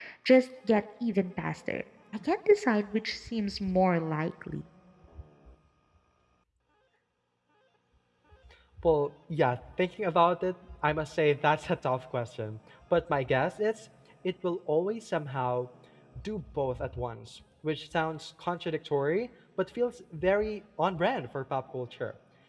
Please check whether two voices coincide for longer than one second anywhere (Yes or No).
No